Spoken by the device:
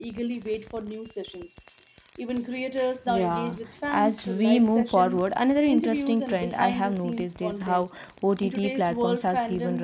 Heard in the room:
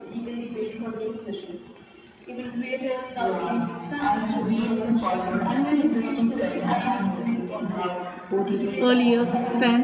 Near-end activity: present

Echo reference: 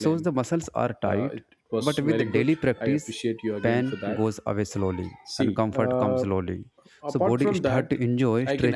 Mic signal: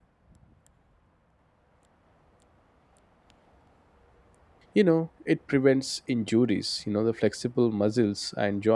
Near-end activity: present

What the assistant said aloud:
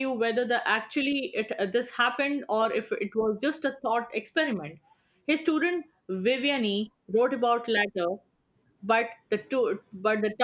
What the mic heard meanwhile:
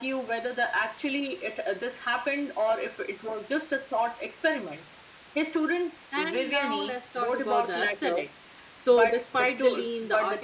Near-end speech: present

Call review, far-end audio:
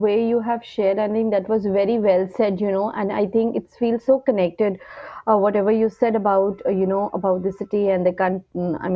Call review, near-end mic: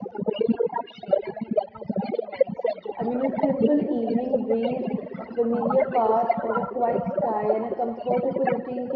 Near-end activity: present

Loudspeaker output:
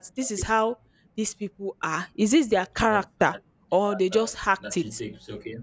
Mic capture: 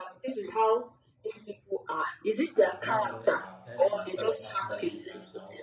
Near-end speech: present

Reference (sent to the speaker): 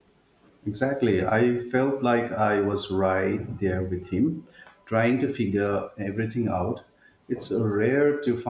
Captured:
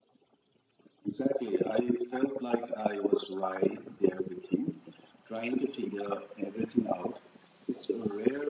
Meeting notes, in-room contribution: none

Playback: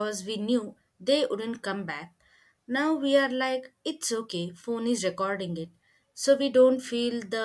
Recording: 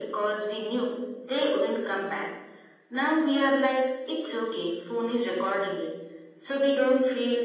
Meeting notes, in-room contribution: none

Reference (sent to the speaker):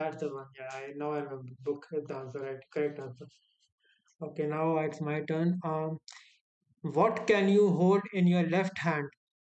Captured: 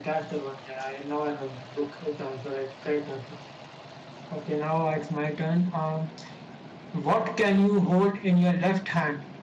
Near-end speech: none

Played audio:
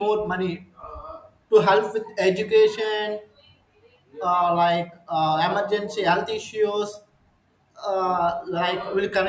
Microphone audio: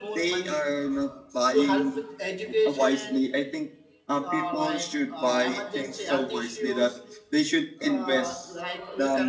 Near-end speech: present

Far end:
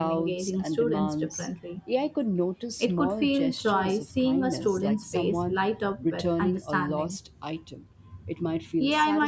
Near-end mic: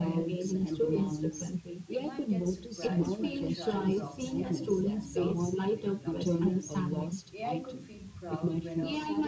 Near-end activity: present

